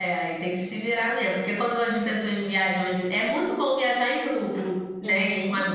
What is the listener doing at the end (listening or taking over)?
listening